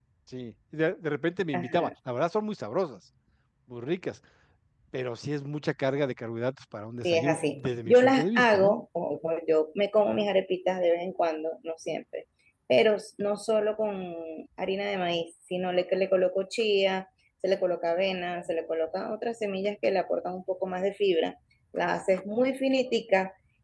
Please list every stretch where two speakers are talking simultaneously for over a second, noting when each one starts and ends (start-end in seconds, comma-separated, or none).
7.0-8.7